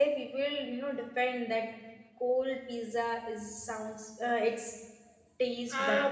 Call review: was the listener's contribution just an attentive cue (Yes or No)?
No